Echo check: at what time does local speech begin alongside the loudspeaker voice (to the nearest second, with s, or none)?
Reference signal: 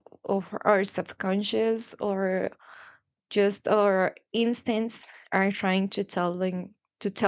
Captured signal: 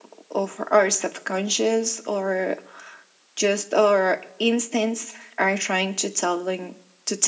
none